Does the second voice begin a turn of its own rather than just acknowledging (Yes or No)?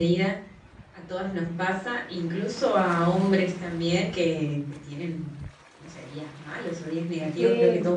No